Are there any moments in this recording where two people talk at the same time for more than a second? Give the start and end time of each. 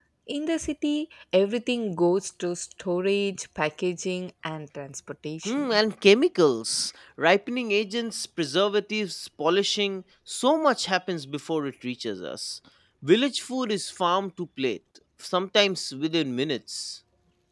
none

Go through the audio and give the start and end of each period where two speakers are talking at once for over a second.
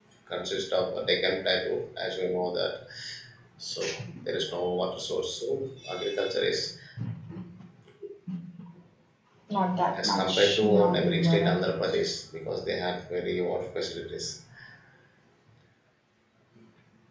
10.0-11.6

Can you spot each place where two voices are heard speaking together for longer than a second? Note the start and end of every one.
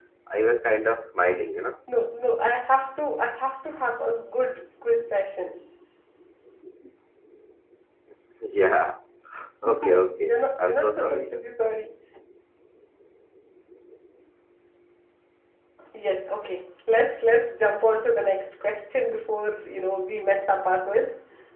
9.6-11.3

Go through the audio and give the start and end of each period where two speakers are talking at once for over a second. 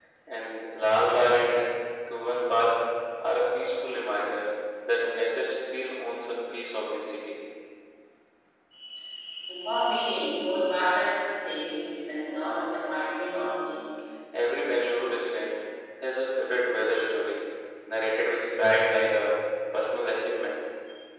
none

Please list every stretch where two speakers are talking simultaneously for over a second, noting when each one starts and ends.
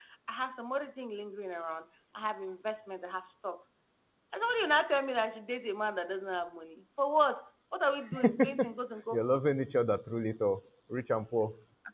none

